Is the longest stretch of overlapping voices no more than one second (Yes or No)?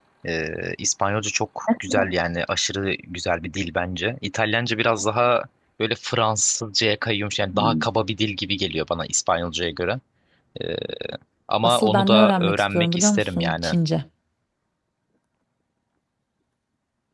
No